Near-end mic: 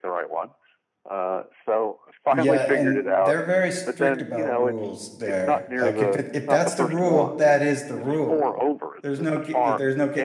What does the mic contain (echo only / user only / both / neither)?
both